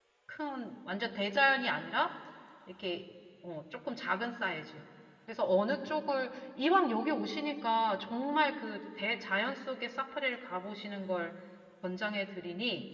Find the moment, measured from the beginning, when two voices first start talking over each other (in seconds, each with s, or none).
none